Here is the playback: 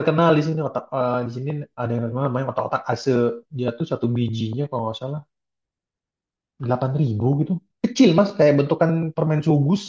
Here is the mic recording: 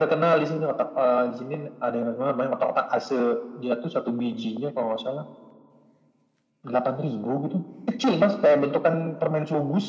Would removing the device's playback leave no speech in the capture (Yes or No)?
Yes